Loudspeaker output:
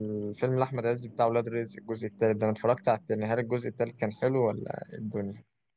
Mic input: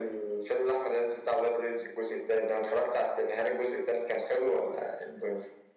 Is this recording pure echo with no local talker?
Yes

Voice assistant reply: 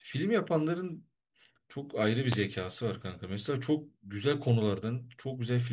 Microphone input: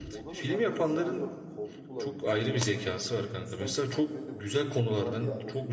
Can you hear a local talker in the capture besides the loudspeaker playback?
Yes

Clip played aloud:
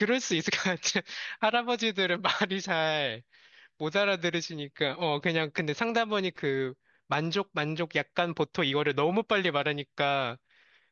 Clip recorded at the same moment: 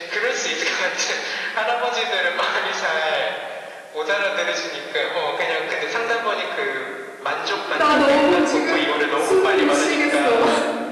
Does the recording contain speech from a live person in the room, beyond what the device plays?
Yes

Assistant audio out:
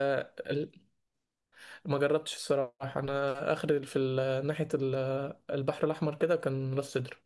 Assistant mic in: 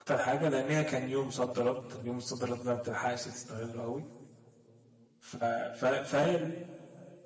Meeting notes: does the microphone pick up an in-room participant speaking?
Yes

